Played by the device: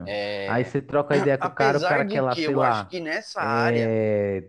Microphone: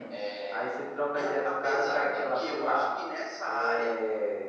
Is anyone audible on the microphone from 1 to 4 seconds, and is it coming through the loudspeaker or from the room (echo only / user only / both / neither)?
echo only